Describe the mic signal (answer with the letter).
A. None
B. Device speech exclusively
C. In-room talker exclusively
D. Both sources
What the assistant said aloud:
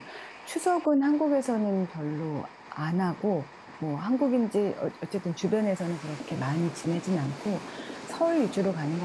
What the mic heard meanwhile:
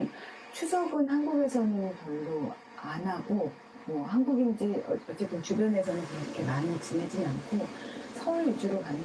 B